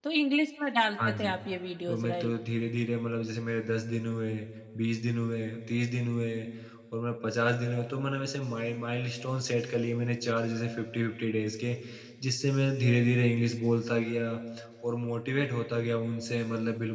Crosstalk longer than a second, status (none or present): none